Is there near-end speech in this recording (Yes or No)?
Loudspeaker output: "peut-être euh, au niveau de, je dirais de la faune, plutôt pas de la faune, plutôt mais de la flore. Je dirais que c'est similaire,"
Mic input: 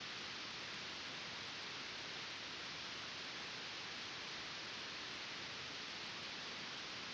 No